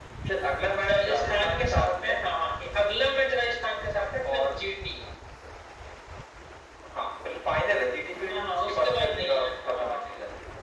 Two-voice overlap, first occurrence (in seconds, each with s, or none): 0.9 s